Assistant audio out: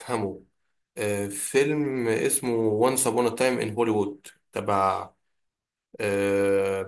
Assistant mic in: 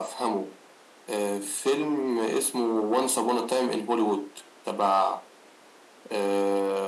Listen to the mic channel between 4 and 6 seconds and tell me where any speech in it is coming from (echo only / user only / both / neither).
echo only